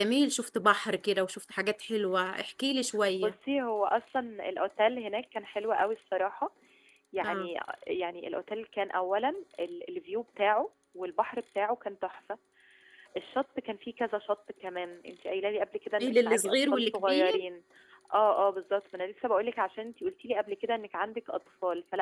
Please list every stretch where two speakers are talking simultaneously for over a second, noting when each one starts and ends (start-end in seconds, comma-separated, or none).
16.0-17.4